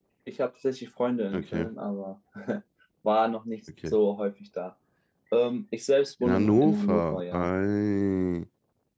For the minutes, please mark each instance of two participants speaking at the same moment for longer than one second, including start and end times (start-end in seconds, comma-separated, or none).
6.2-7.5